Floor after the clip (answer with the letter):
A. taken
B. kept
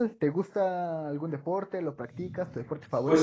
A